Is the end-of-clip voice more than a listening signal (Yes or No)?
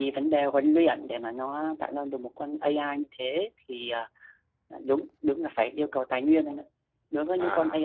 No